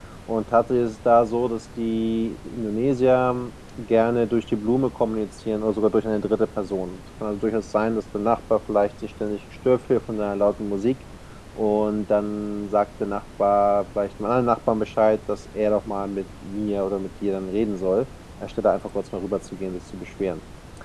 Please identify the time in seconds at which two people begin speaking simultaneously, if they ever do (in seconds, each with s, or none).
none